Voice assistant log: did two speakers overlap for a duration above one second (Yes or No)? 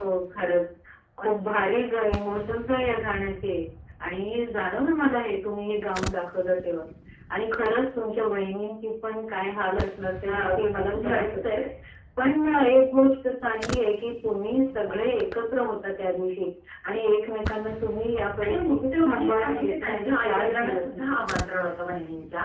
Yes